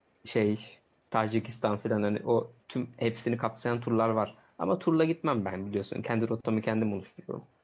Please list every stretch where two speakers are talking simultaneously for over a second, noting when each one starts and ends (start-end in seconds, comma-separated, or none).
none